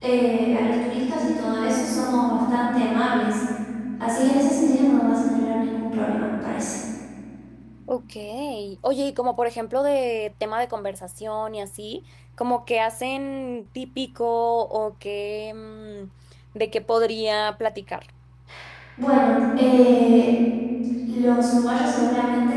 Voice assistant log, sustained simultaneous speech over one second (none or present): none